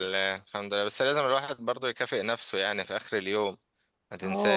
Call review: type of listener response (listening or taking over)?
taking over